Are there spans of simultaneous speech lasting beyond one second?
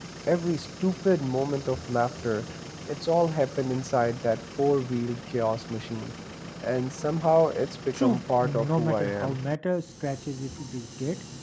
Yes, from 7.9 s

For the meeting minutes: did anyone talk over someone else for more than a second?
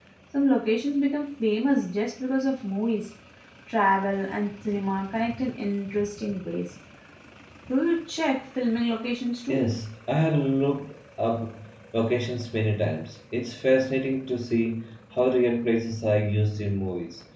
No

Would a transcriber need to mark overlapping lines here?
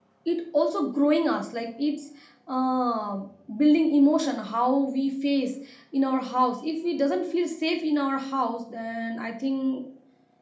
No

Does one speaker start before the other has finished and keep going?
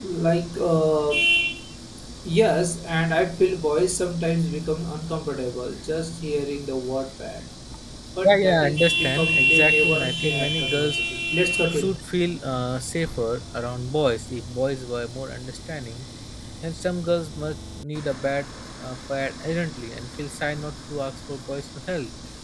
Yes, from 8.2 s

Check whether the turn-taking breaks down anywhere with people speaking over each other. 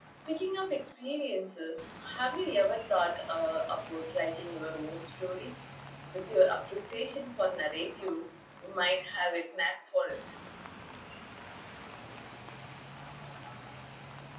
No

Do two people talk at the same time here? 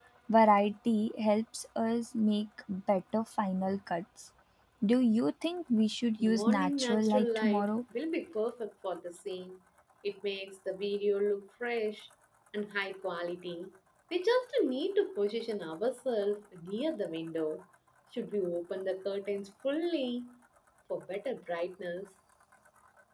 Yes, from 6.2 s

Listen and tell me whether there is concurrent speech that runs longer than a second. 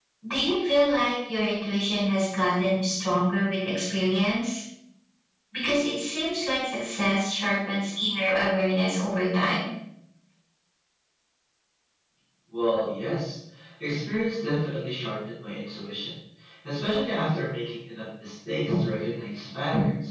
No

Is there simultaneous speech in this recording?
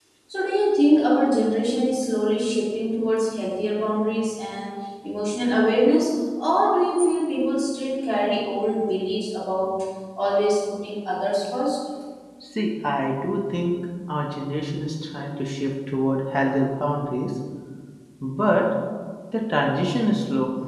No

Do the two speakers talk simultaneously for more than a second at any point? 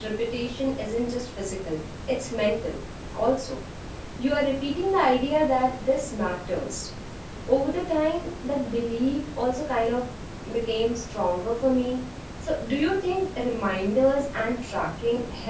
No

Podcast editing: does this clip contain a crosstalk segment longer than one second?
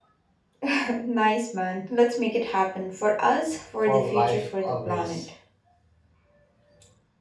Yes, from 3.9 s

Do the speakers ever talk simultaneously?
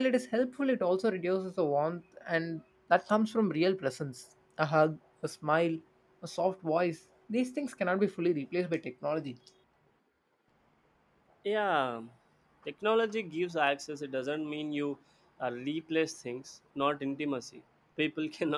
No

